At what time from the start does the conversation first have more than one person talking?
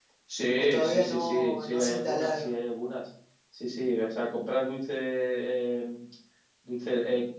1 s

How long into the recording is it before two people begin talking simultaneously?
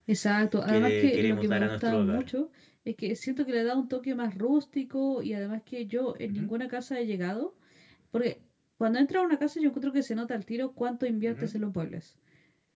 1 s

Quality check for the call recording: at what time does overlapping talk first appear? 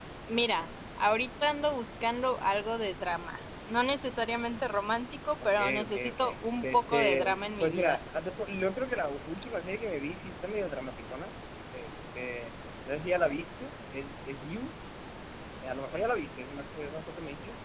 6 s

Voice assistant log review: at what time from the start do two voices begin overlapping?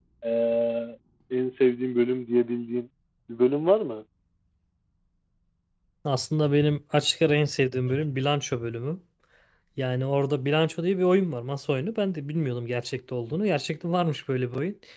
none

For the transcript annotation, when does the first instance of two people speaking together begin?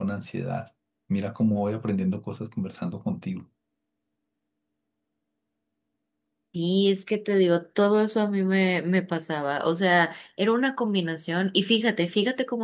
none

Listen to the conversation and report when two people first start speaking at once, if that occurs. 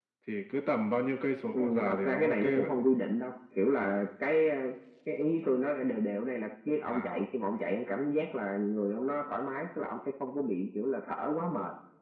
2 s

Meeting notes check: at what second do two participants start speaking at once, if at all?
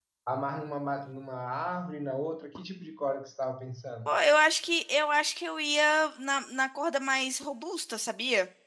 none

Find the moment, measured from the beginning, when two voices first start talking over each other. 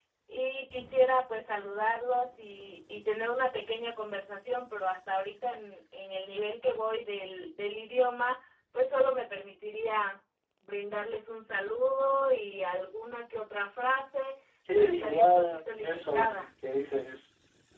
15 s

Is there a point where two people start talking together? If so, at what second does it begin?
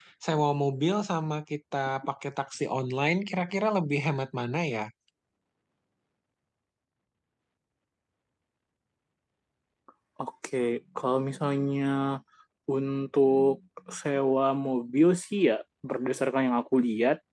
none

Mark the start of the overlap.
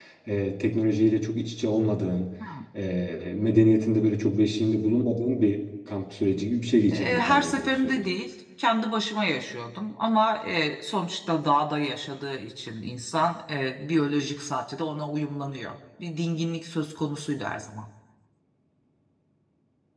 7 s

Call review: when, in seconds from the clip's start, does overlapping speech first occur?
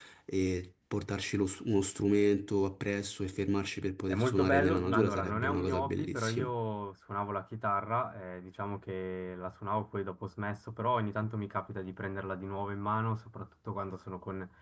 4 s

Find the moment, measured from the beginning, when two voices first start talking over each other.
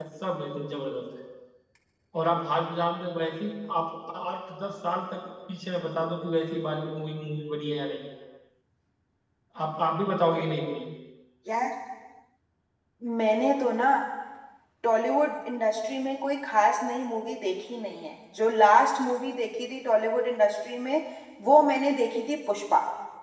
none

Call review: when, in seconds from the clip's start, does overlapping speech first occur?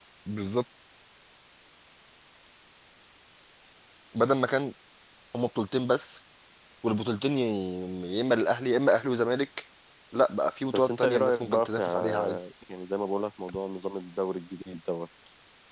11 s

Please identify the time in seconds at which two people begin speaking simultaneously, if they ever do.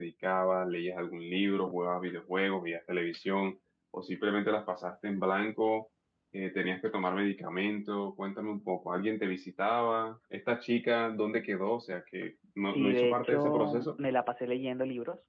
13 s

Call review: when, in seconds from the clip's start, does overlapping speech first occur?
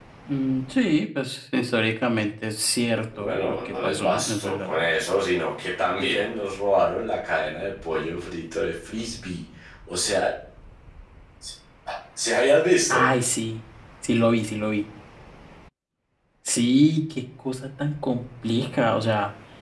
3 s

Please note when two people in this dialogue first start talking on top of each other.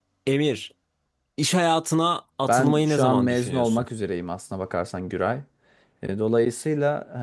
2 s

